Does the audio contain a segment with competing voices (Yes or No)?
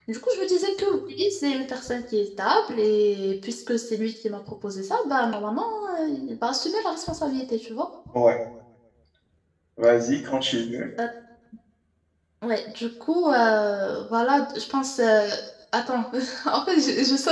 No